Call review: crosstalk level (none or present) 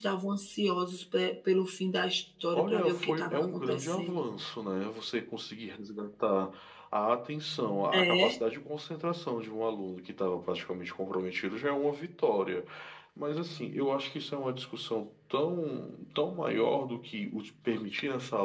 present